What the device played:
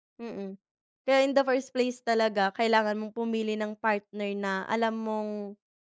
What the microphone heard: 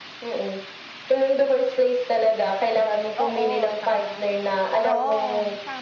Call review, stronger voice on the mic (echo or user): echo